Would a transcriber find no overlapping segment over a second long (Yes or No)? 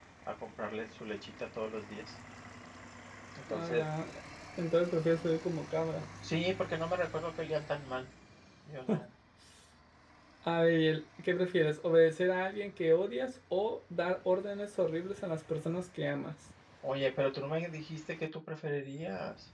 Yes